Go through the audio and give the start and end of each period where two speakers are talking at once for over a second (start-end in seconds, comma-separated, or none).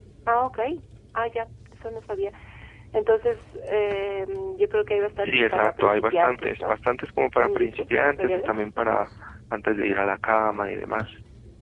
5.2-6.8, 7.4-9.0